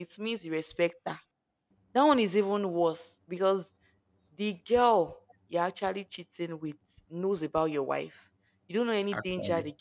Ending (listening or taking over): listening